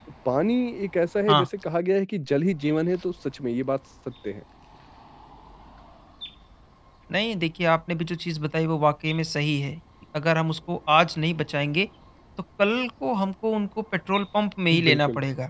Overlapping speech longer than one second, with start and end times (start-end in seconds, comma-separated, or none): none